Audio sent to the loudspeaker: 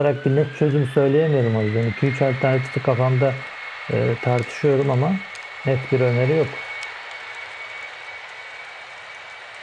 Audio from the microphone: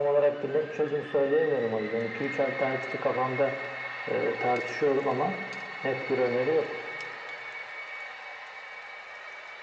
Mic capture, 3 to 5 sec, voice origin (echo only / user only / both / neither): echo only